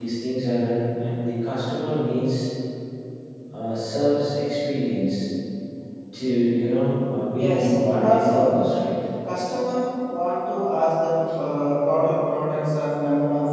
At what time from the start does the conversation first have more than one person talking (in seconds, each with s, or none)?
7.4 s